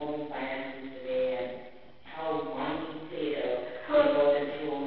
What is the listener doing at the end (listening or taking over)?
listening